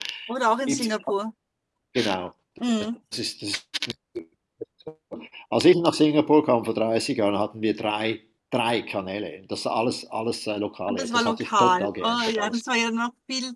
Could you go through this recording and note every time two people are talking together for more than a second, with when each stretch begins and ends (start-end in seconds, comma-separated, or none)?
10.9-12.6